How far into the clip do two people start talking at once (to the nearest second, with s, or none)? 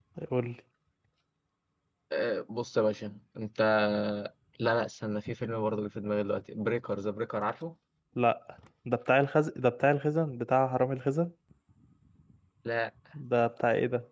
none